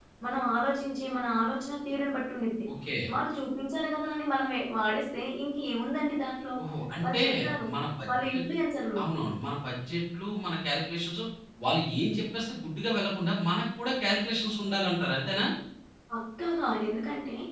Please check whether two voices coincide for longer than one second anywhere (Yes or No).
No